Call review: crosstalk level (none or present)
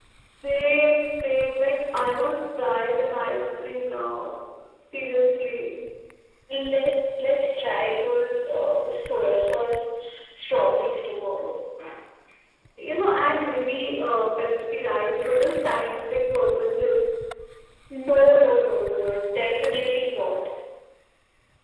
none